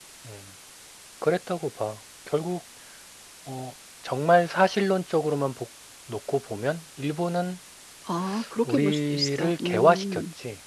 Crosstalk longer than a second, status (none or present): present